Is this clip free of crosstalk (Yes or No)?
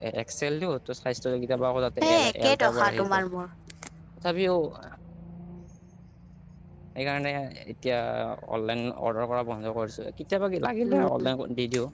No